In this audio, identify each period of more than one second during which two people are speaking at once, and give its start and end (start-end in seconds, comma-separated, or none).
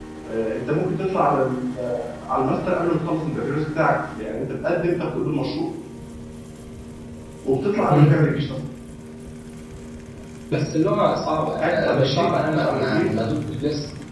11.6-13.1